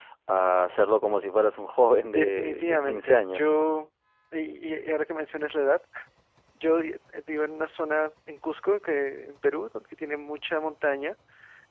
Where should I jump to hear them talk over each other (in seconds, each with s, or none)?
2.1 s